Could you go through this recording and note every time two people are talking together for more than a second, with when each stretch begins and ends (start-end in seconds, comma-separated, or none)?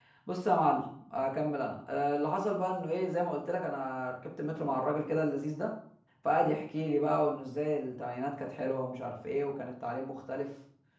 none